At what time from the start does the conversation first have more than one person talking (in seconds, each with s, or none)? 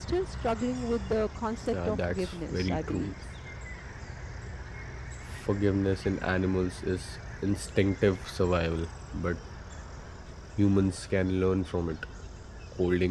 1.7 s